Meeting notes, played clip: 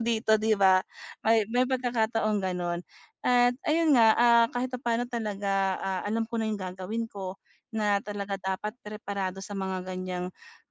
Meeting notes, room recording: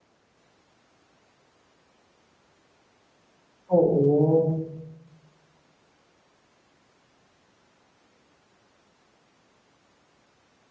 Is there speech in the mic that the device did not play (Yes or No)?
Yes